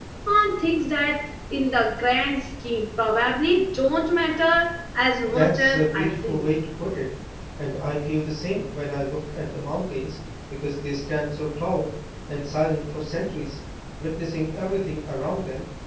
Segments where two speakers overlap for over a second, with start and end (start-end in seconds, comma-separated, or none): 5.3-6.5